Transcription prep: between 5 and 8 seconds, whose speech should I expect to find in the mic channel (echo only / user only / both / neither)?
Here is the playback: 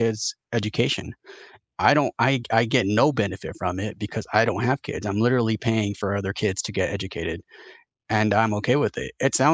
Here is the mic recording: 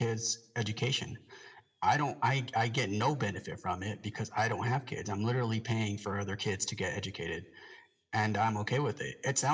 echo only